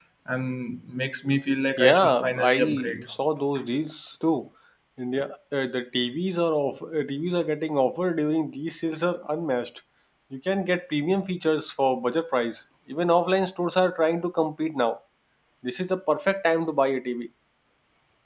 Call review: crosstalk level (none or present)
present